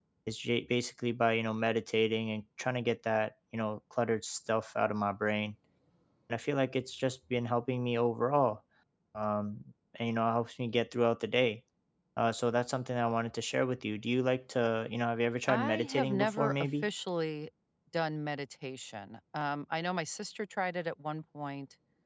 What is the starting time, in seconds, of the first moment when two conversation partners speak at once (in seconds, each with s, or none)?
15.5 s